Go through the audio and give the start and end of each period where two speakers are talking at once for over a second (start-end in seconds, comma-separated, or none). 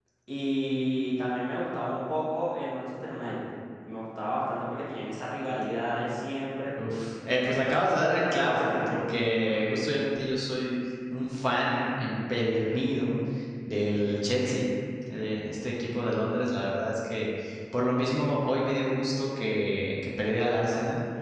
8.3-9.7